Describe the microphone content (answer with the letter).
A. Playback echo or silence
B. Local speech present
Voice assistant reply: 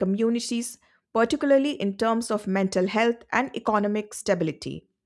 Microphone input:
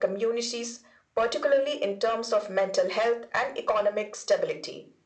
A